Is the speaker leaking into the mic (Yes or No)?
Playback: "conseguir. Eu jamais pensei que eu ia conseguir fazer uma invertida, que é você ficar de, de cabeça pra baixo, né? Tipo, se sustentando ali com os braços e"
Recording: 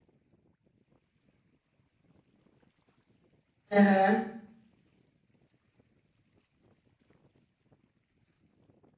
No